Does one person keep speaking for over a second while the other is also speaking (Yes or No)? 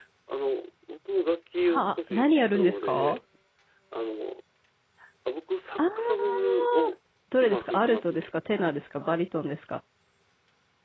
Yes